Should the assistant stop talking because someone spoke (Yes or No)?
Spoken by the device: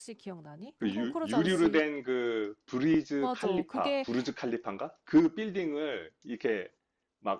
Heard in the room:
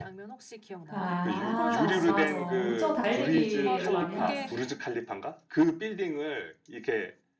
Yes